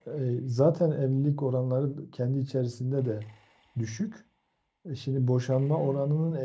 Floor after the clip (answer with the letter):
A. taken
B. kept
B